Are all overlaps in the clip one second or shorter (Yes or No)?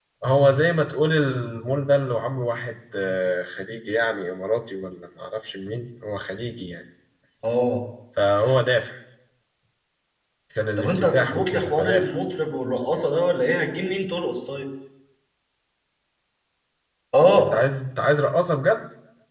No